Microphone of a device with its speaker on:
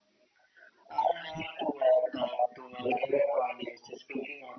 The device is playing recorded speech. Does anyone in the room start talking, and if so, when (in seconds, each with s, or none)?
none